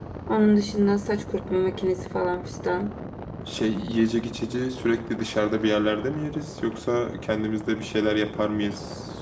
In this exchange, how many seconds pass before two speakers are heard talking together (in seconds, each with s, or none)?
none